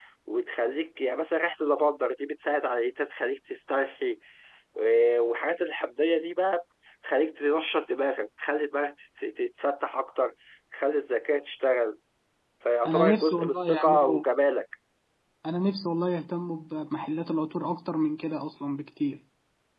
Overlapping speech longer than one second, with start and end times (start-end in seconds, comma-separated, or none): 12.8-14.2